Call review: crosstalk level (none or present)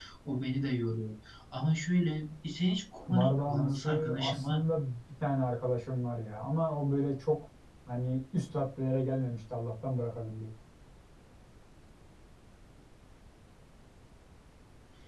present